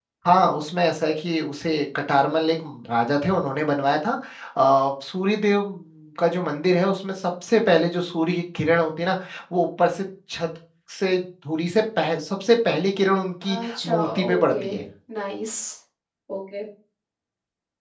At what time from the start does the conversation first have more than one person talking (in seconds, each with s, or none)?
13.4 s